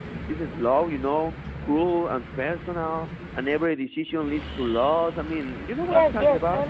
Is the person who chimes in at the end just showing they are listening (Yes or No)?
No